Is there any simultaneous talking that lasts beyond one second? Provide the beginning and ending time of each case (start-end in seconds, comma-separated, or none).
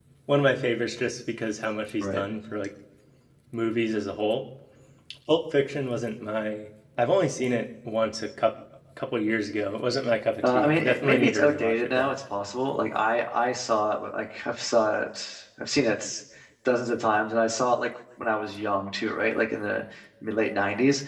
10.4-12.1